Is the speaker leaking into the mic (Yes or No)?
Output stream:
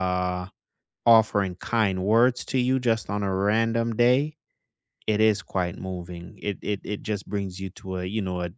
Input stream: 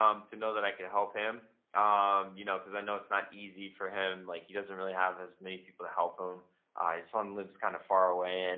No